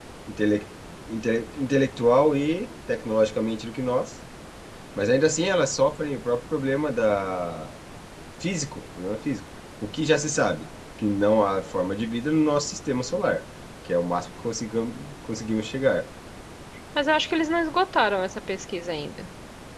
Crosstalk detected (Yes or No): No